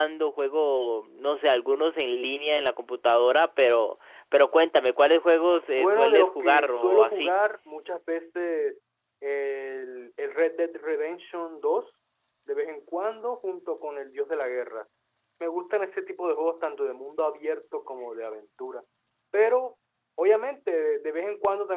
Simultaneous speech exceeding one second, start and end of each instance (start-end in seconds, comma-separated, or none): 5.8-7.3